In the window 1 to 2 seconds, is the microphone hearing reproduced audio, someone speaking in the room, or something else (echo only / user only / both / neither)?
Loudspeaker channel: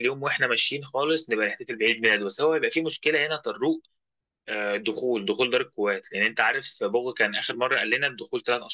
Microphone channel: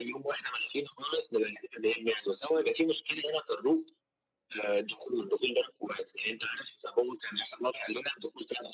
echo only